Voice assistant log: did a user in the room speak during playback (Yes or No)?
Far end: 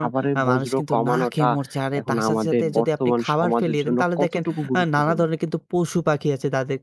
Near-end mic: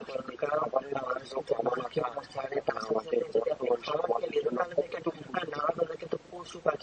No